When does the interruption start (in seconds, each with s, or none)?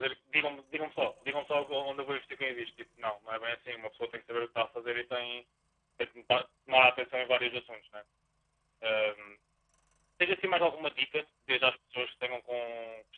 none